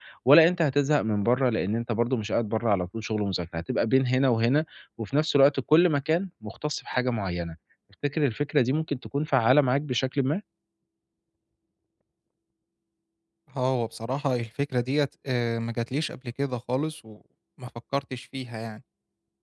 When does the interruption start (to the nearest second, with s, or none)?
none